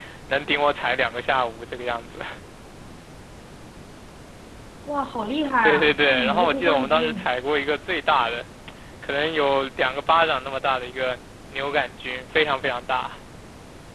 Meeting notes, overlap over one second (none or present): present